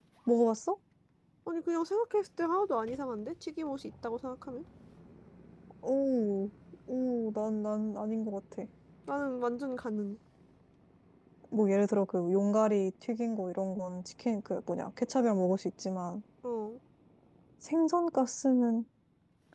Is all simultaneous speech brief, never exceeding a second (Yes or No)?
Yes